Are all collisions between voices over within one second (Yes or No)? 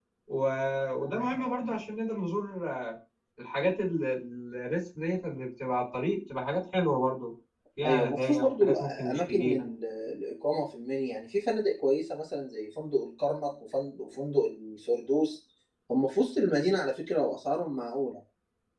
No